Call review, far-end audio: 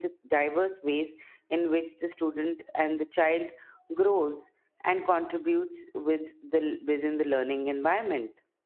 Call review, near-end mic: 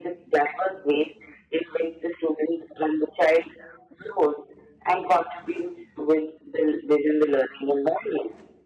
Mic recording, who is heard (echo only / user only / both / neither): echo only